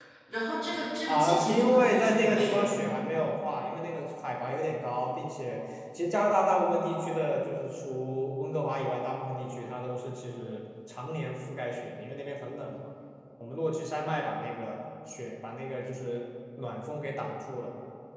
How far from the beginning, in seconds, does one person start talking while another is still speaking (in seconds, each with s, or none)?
1.1 s